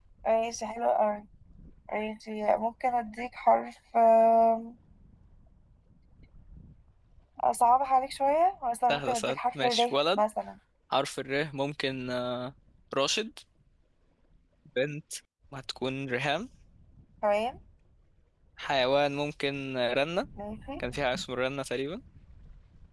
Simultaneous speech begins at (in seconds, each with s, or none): 8.9 s